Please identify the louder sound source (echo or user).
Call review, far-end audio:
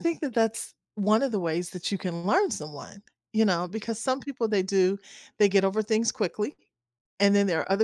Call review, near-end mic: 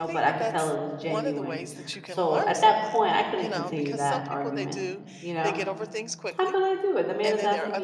user